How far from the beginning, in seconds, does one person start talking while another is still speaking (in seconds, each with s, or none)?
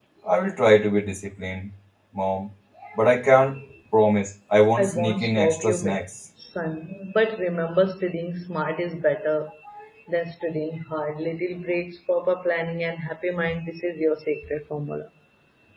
4.8 s